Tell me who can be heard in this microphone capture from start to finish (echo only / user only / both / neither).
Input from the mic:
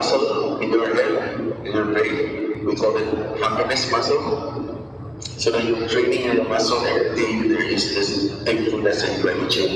echo only